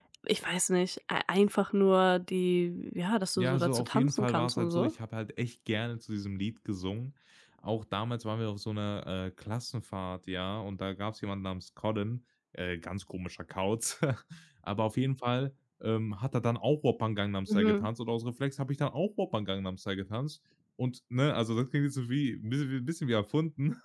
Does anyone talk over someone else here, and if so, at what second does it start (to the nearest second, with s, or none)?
3 s